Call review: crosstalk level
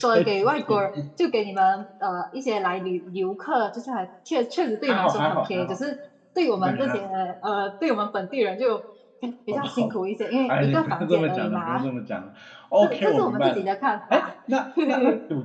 present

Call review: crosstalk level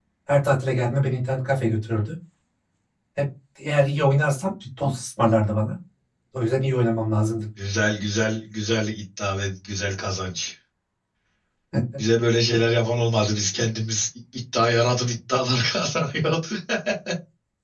none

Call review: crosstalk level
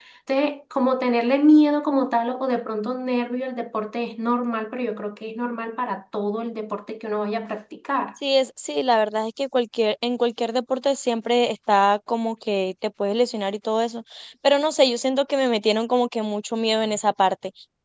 none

